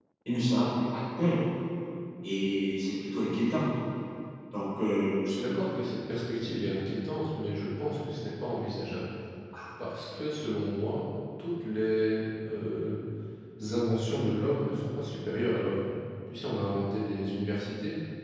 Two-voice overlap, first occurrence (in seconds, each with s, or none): none